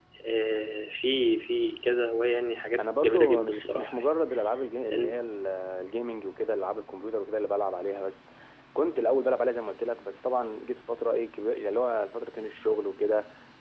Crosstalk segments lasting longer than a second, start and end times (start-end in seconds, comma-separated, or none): 2.8-4.1